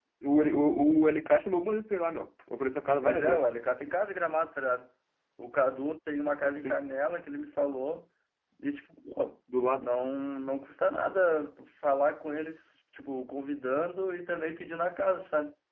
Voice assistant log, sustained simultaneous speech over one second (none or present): none